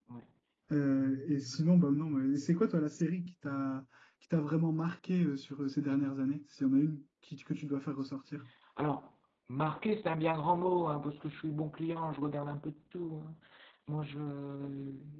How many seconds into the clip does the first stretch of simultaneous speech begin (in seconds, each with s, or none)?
none